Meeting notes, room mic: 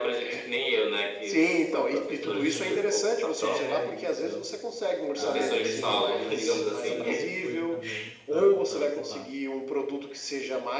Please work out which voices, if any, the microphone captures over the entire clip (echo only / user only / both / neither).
both